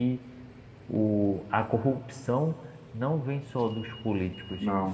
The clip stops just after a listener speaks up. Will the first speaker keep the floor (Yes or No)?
Yes